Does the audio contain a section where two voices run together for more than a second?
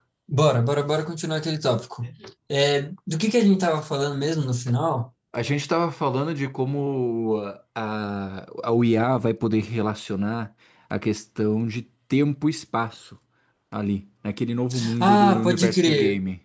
Yes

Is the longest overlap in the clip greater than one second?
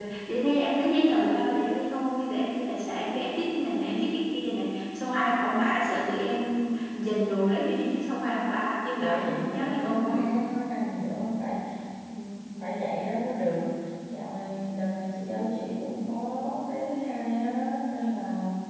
Yes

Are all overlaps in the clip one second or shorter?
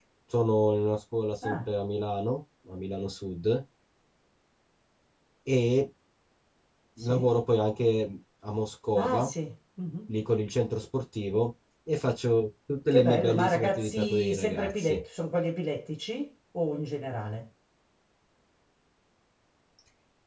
No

